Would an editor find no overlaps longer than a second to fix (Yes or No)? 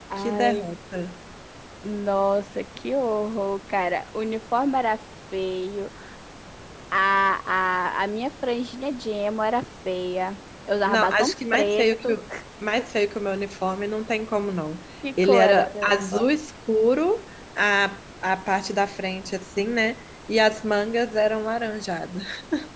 No